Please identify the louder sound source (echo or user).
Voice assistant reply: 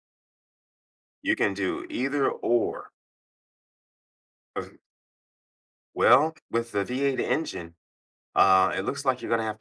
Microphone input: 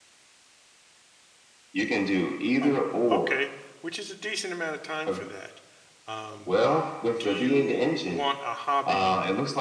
echo